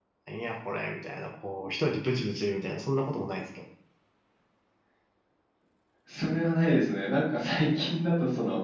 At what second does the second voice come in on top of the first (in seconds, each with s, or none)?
none